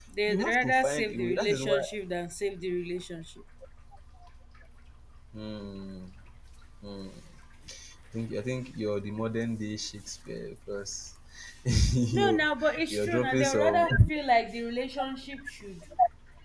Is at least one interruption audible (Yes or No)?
Yes